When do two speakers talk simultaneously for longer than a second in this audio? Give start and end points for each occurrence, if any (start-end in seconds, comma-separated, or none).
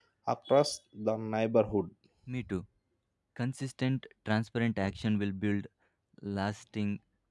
none